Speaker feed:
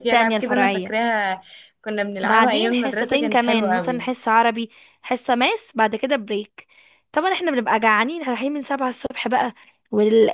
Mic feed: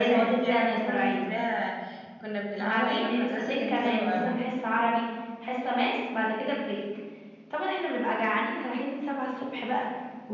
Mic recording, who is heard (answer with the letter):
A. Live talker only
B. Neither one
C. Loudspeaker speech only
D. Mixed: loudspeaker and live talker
C